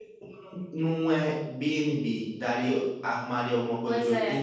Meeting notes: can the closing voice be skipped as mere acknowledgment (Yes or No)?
No